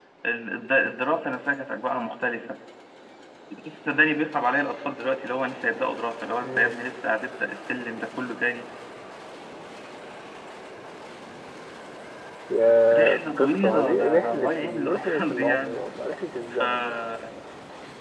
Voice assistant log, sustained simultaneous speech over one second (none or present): present